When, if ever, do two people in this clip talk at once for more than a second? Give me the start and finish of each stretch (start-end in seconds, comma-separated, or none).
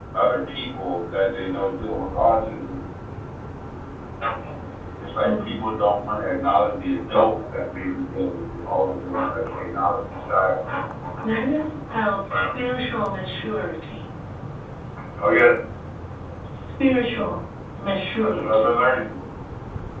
none